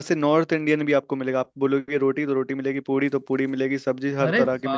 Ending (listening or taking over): listening